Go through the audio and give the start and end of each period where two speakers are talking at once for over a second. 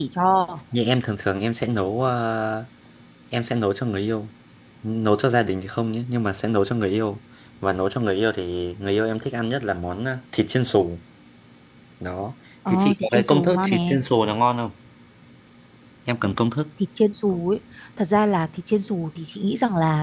12.7-14.0

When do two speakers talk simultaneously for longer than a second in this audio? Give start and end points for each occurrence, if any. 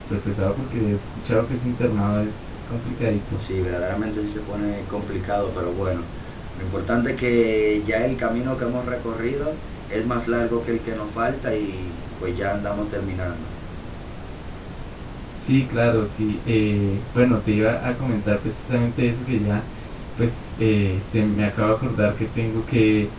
none

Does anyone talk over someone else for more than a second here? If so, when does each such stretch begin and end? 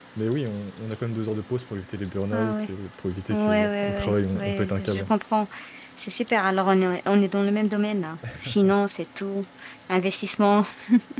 3.3-5.1

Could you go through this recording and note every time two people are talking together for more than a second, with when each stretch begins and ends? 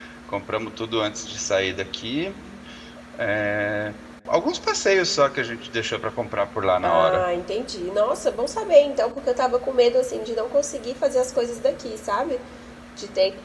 none

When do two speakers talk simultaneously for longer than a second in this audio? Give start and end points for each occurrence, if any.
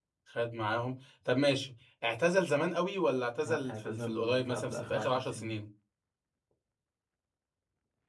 3.4-5.5

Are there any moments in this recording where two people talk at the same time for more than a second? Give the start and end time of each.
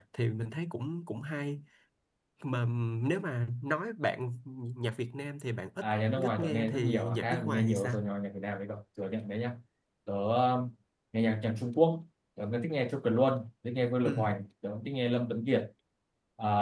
6.2-8.0

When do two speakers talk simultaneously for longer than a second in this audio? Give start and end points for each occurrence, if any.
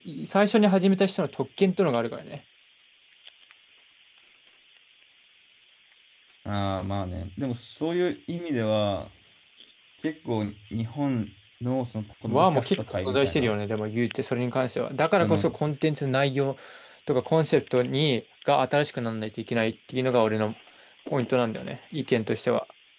12.3-13.5

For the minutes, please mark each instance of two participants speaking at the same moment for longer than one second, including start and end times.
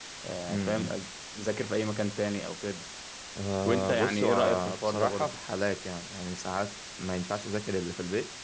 3.6-5.4

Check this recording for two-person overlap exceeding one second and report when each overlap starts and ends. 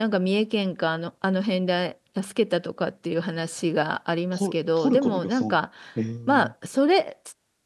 4.3-5.6

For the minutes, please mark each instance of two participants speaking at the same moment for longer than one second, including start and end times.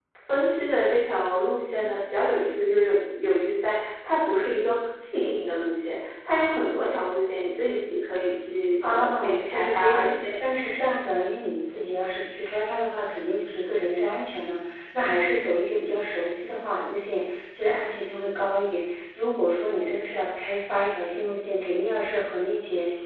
8.8-10.1

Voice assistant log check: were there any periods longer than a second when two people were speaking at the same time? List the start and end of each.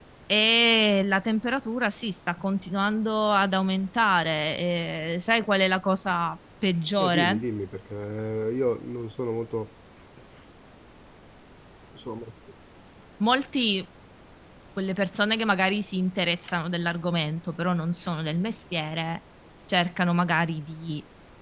none

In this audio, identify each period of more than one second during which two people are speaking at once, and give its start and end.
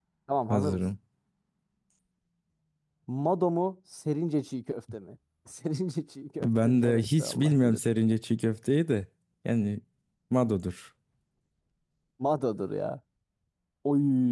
6.4-7.8

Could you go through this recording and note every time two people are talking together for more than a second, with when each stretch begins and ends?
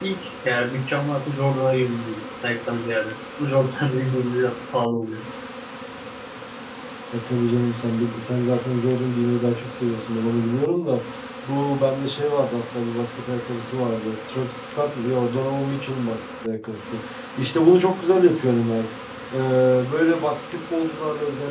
none

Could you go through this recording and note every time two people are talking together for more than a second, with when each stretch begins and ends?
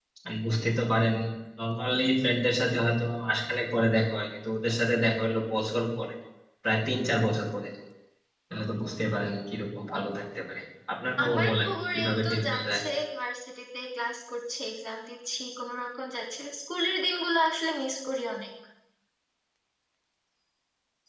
11.2-12.8

